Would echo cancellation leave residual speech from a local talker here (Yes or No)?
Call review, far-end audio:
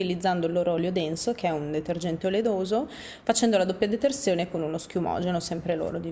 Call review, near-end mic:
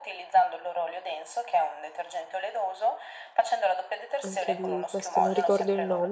Yes